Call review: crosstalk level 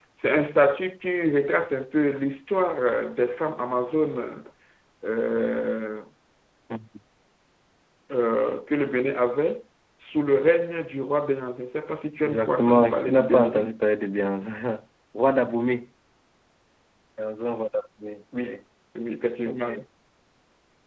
present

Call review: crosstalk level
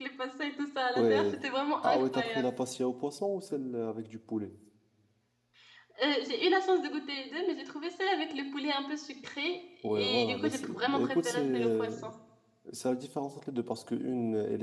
present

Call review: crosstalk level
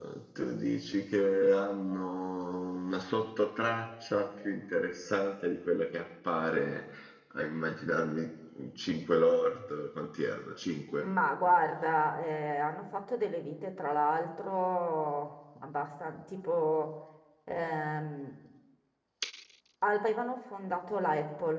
none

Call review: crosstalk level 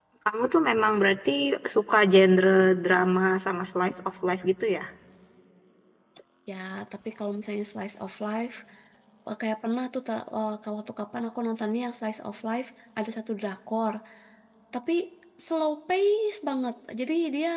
none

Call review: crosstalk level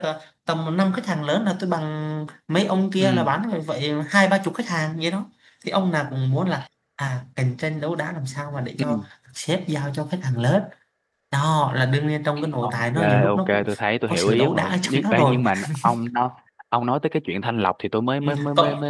present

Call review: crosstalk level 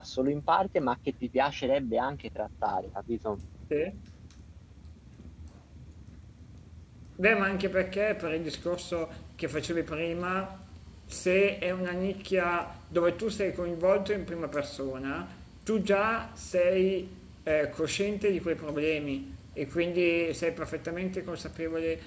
none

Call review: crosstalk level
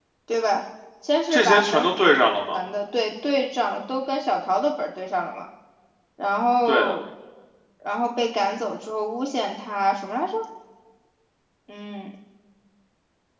present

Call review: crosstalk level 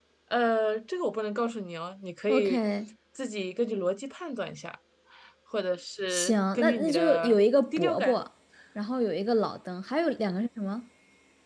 present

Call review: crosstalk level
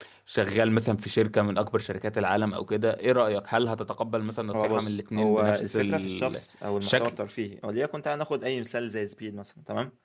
present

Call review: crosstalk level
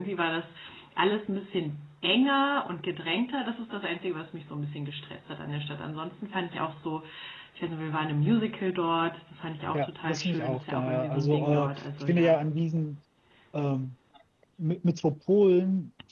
present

